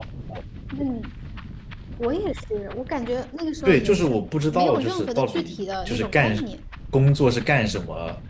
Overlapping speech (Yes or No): Yes